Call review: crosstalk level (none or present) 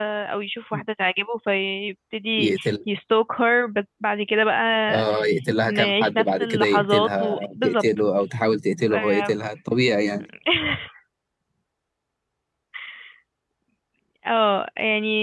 present